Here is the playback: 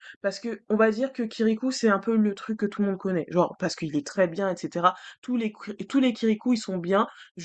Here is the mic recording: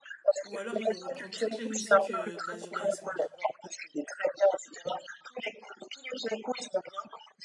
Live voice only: Ou alors, ils vont reprendre toutes les musiques euh, d'Azur et Asmar.

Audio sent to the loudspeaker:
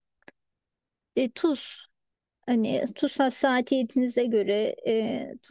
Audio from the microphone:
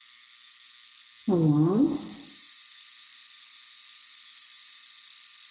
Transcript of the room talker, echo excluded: Tamam.

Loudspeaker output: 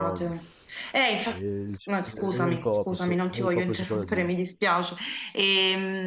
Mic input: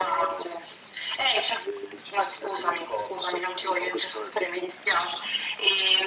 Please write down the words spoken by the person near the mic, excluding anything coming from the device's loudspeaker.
none

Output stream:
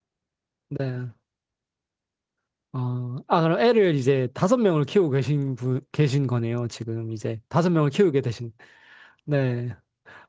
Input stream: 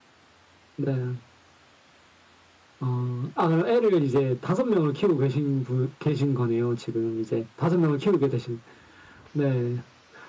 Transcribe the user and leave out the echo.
none

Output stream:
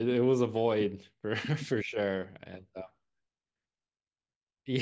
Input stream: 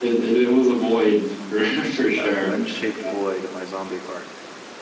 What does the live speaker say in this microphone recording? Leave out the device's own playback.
Mm. Yeah, a Glenn-shaped void in my zombie heart.

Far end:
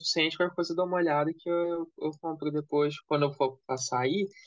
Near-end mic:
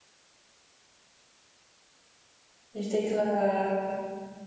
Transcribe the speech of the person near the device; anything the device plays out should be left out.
A gente tem que levar água.

